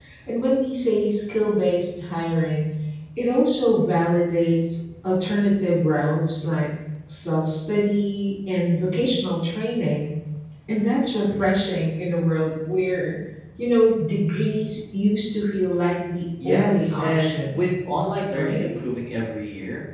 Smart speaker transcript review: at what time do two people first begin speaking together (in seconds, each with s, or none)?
16.4 s